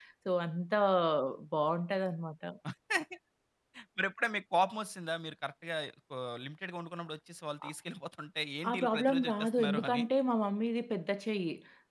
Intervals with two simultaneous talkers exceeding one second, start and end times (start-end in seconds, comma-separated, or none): 8.7-10.0